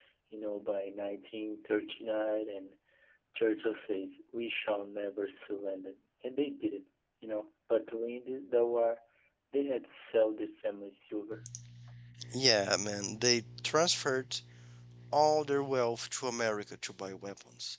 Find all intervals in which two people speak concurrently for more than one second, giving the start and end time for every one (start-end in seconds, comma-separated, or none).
none